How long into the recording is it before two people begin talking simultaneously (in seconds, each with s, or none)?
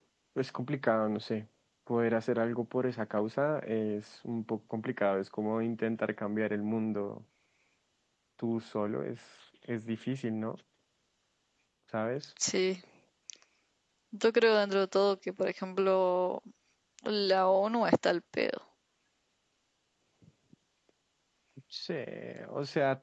none